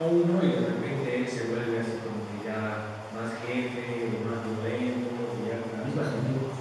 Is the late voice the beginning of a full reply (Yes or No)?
No